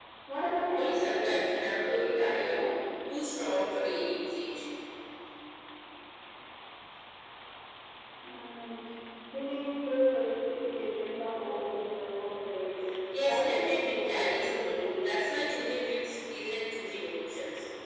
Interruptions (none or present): present